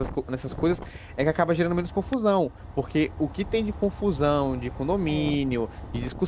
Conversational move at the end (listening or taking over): listening